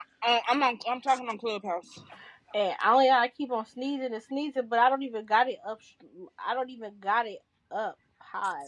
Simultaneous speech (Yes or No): No